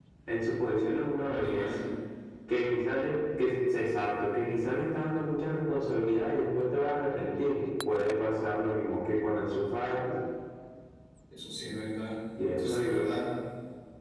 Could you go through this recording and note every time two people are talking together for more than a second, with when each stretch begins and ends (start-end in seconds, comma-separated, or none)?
none